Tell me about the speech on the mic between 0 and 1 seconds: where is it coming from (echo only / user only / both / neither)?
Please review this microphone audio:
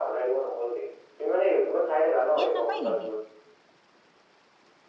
echo only